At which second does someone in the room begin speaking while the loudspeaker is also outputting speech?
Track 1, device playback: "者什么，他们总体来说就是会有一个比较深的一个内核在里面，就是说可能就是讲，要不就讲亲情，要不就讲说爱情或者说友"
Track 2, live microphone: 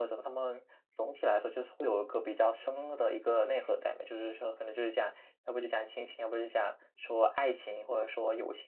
none

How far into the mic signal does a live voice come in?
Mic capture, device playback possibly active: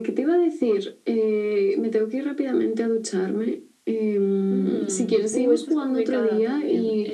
5 s

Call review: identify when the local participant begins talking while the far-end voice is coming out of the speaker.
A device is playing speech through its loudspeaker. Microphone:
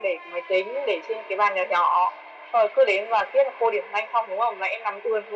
none

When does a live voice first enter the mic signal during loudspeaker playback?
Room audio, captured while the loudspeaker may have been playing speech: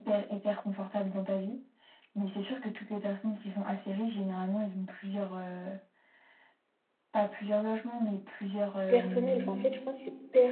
9 s

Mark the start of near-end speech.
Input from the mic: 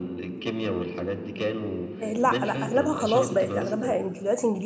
2 s

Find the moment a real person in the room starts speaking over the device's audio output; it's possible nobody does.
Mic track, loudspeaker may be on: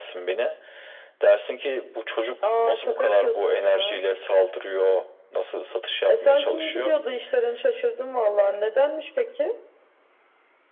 none

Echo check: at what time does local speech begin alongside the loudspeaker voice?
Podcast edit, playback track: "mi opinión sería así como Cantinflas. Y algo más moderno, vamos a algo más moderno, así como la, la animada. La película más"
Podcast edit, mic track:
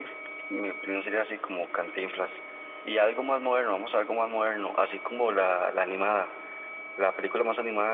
none

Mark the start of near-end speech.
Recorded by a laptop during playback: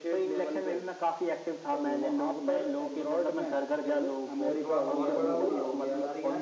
4 s

